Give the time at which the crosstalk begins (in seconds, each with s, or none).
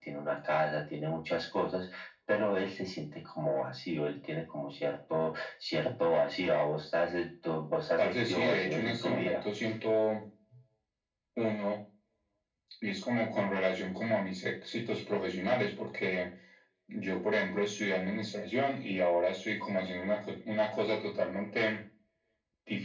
8.0 s